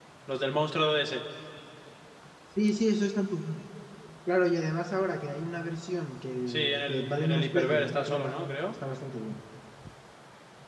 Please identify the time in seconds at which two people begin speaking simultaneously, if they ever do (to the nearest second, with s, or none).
6 s